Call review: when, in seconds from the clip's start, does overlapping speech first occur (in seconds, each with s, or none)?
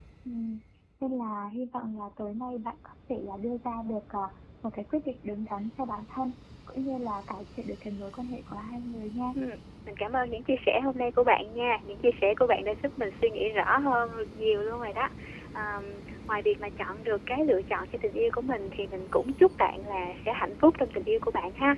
none